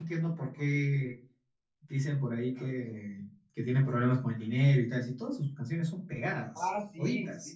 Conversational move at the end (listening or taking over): taking over